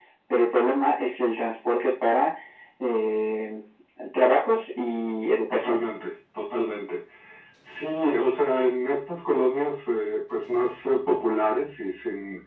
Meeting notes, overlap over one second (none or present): none